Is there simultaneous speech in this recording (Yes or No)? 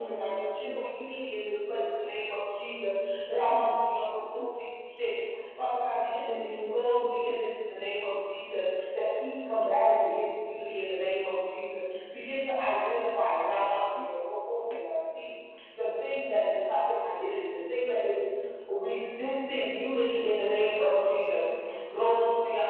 Yes